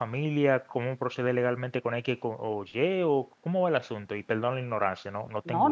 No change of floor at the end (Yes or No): No